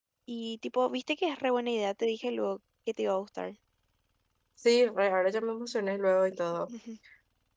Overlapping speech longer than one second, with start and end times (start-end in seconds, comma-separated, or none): none